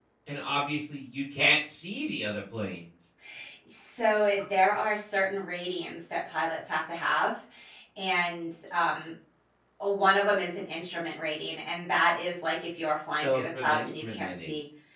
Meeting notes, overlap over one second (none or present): present